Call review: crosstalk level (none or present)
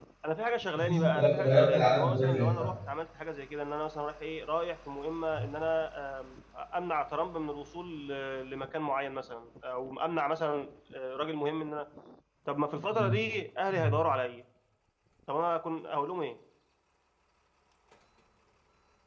present